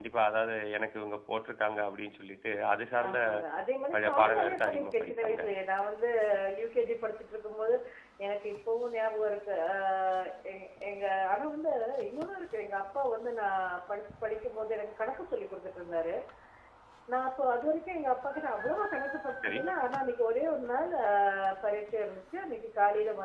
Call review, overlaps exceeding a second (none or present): present